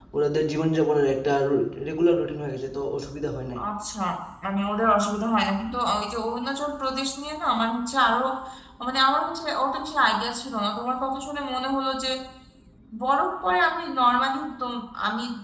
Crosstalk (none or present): none